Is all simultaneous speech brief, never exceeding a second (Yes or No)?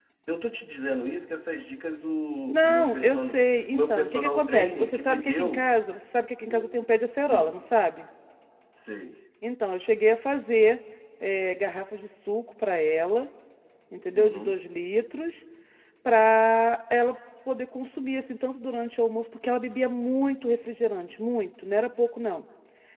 No